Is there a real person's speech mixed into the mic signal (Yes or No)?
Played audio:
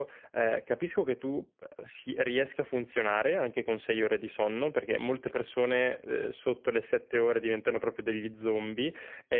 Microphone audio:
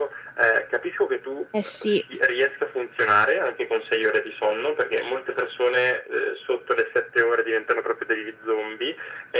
Yes